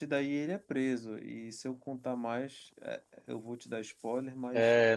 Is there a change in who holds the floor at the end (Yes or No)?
Yes